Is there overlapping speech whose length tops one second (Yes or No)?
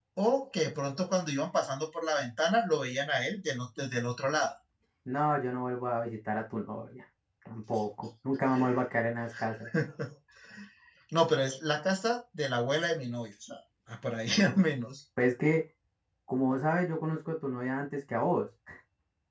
No